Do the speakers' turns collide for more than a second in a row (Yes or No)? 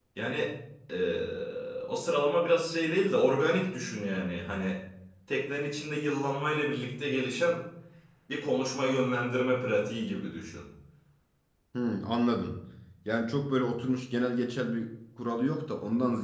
No